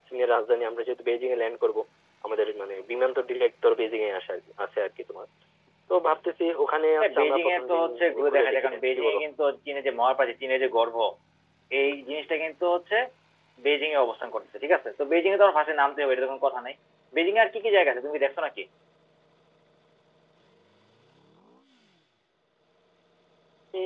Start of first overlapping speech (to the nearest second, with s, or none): 7 s